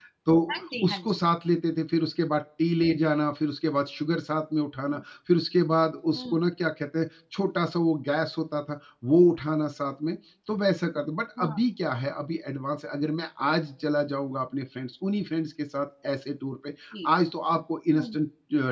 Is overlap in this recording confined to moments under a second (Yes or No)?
Yes